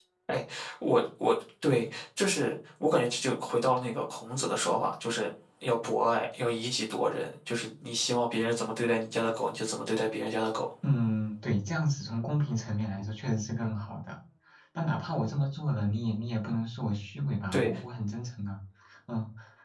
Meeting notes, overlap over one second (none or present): none